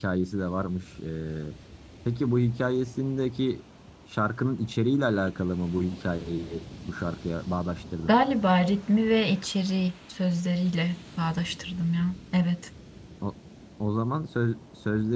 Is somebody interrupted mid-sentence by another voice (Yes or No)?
No